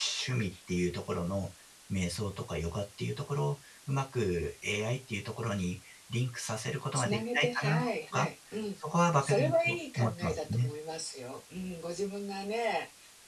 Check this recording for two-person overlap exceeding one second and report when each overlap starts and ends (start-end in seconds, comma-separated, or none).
6.9-8.3, 9.2-10.7